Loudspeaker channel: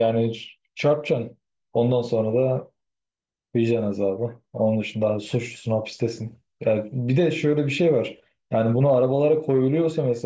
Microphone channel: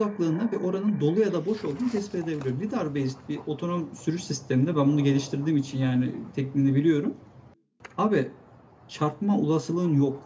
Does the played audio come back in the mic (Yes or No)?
No